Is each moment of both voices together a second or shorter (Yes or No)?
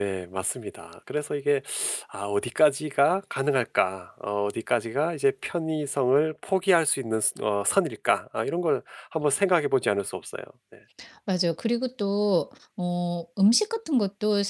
Yes